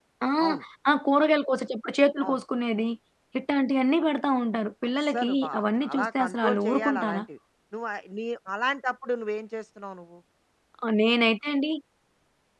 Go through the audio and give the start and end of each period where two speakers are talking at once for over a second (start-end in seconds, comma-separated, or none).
5.0-7.2